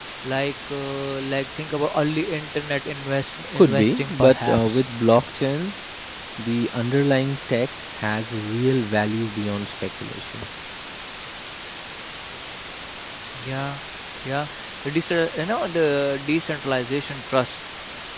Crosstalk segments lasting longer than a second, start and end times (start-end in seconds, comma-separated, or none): 3.5-4.8